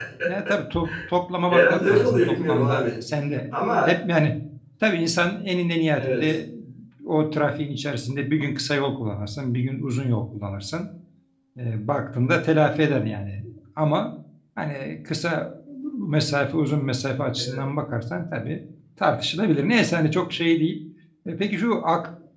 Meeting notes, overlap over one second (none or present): present